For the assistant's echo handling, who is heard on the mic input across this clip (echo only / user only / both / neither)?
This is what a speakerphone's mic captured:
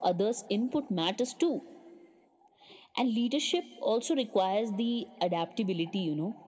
echo only